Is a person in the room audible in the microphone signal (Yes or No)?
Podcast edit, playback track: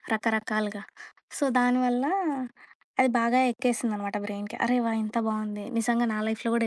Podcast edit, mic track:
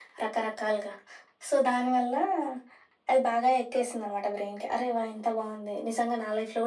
No